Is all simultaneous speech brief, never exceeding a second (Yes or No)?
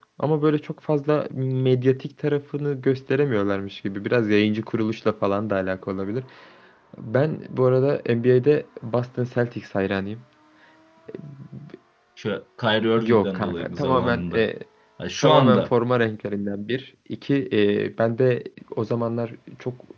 No